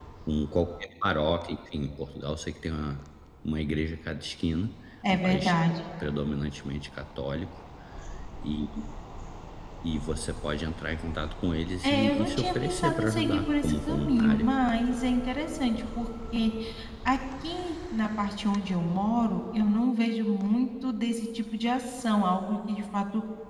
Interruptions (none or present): present